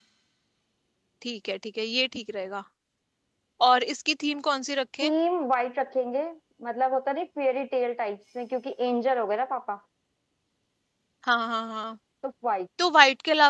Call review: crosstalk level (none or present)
none